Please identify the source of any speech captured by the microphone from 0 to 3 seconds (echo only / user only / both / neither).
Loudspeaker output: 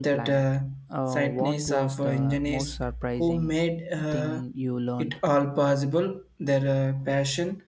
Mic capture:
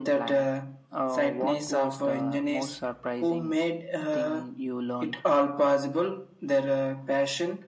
echo only